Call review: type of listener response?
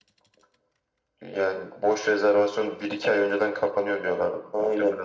taking over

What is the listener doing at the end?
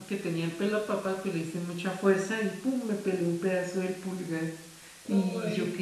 listening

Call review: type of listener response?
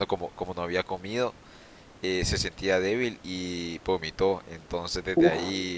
listening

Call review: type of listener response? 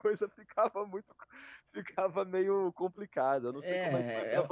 taking over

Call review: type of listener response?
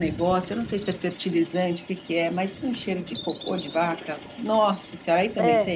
taking over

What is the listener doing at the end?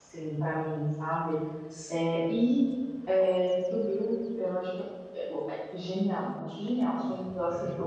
listening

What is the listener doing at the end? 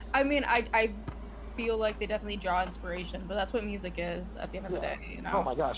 taking over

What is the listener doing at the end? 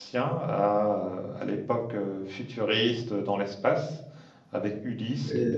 listening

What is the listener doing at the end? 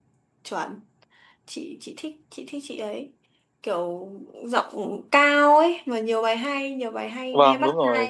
taking over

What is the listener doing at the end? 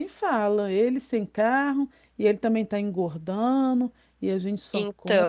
listening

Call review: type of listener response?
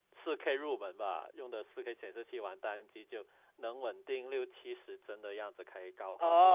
taking over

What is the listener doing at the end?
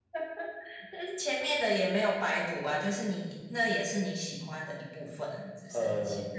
listening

